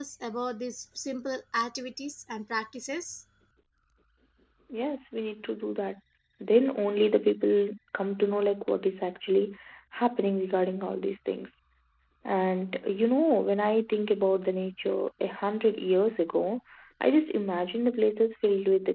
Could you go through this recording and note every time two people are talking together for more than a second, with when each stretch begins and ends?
none

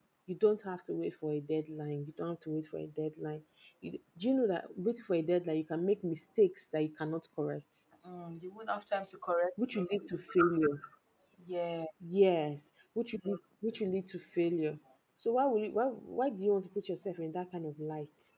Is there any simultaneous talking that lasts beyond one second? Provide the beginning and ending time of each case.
none

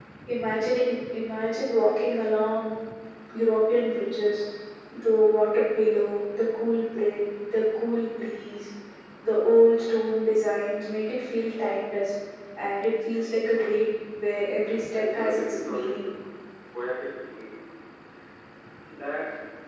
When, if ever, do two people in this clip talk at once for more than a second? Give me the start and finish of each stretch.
14.6-16.1

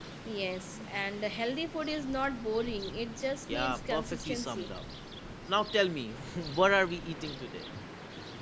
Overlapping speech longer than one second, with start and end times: 3.5-4.7

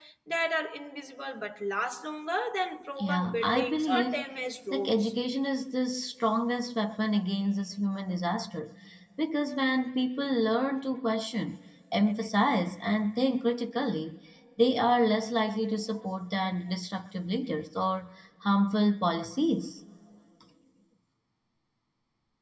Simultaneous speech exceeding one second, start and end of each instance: 3.0-4.2

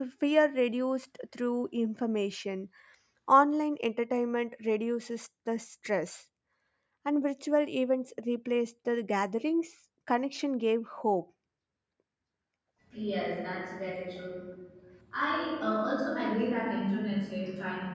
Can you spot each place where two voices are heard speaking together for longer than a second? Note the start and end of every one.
none

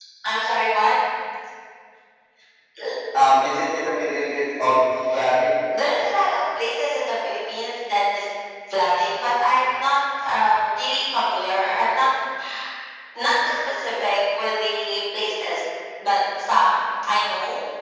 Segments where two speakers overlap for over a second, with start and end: none

